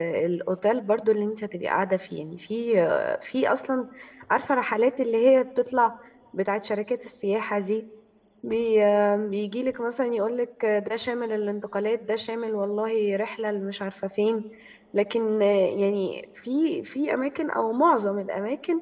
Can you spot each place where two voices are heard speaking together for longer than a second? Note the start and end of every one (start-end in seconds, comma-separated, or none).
none